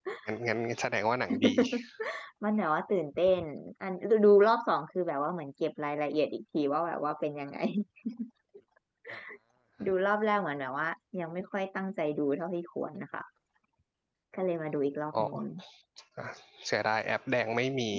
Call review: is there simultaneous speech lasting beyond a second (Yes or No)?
No